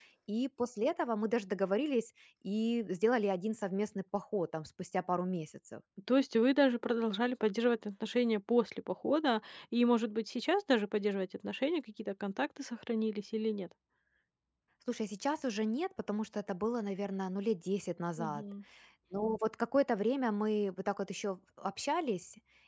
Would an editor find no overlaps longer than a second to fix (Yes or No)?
Yes